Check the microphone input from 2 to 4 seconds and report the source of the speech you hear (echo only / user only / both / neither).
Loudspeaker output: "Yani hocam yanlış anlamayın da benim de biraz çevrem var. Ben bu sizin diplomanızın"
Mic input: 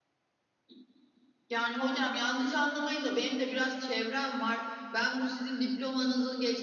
echo only